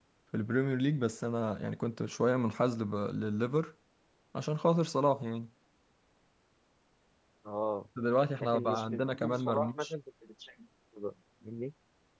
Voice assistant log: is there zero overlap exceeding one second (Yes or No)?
No